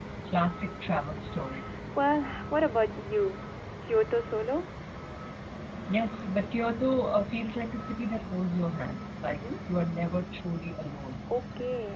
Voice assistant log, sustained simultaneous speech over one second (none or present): none